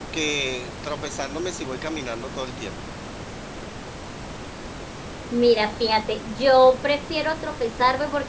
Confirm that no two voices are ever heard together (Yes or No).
Yes